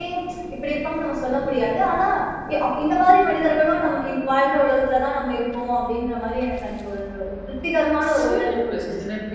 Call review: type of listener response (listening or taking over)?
taking over